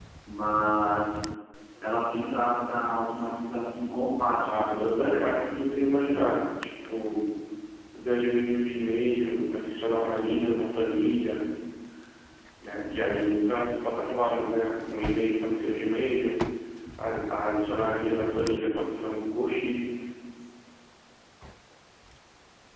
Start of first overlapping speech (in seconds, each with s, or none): 4.4 s